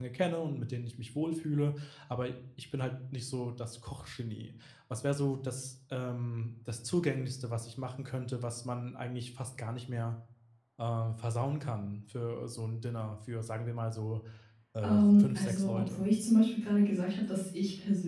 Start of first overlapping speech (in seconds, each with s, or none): 14.8 s